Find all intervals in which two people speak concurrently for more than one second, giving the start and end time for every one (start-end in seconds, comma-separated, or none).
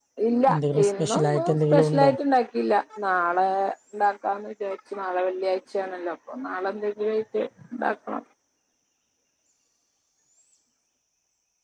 0.5-2.1